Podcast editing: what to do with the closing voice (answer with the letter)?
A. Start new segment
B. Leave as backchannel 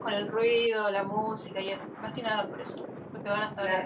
A